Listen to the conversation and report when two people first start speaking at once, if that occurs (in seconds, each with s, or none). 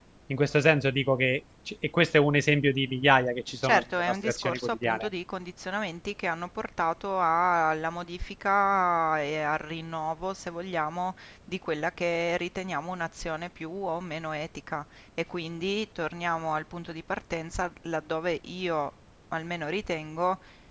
3.6 s